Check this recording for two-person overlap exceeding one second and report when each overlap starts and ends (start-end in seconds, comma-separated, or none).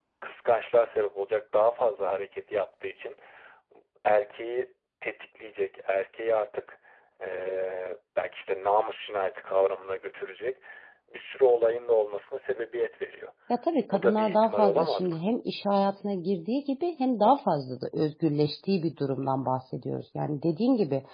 13.9-15.2